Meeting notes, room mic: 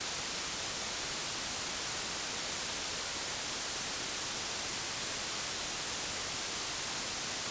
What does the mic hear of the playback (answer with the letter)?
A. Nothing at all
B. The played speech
A